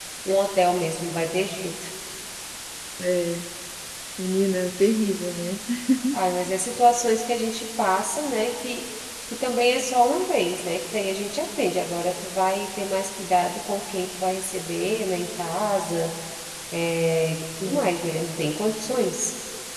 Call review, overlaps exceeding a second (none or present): none